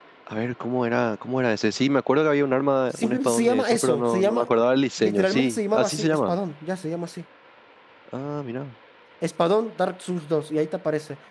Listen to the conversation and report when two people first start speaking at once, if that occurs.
3.0 s

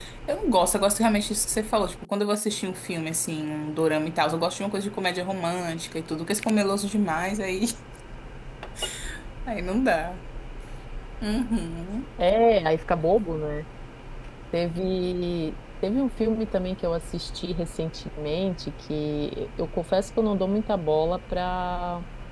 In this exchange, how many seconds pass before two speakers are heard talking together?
none

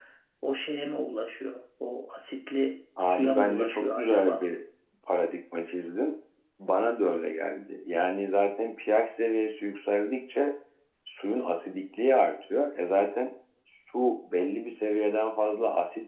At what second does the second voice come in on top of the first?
3.0 s

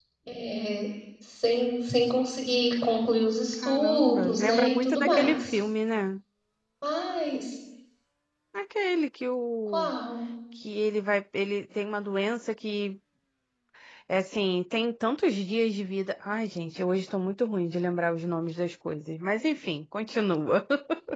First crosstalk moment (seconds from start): 3.6 s

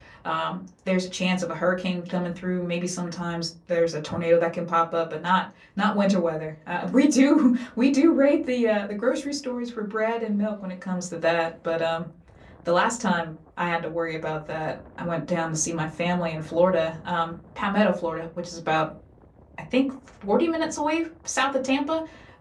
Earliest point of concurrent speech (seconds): none

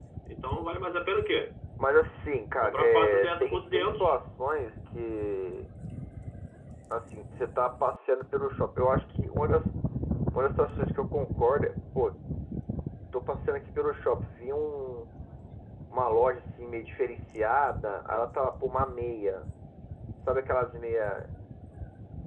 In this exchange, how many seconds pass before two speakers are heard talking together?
2.6 s

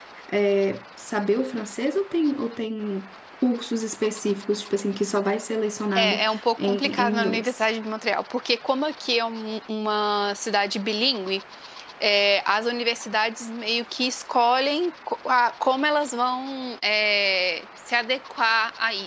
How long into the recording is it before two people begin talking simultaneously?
6.0 s

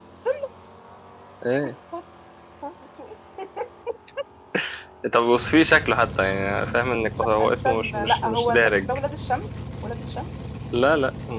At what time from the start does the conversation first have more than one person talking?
7.4 s

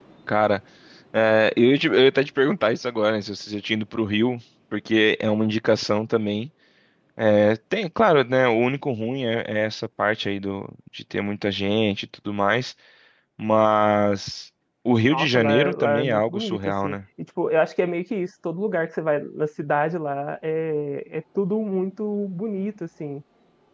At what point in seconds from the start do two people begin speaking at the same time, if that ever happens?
15.0 s

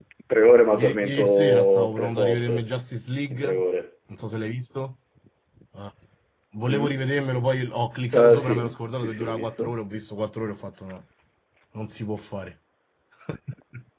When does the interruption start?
0.8 s

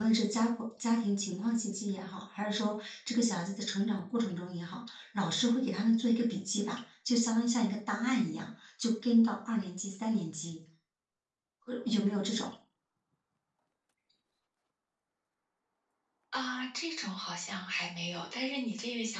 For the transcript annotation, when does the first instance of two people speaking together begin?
none

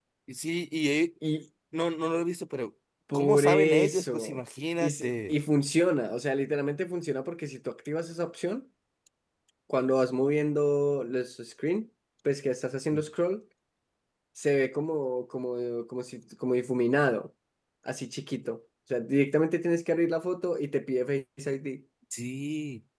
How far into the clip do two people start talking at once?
3.1 s

